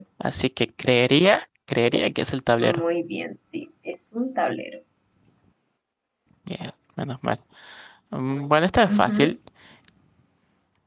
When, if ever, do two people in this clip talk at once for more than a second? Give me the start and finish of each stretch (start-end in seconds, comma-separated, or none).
none